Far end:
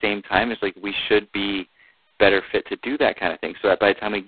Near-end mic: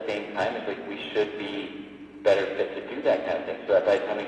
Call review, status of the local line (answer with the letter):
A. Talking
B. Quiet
B